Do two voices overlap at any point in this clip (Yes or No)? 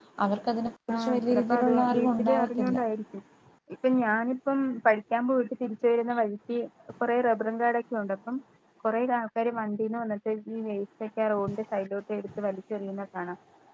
Yes